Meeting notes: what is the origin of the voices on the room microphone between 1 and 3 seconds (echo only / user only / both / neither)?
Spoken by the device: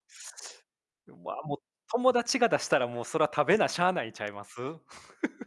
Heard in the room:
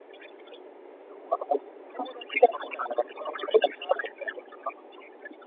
echo only